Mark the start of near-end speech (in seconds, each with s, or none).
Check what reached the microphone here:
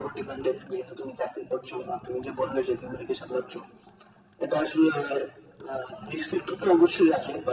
none